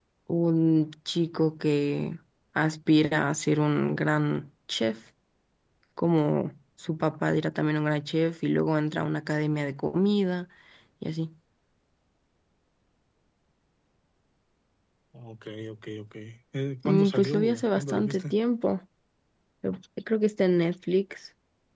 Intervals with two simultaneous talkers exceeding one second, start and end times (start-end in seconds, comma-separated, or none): 16.9-18.3